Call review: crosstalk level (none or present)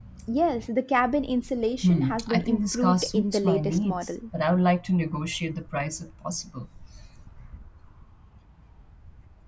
present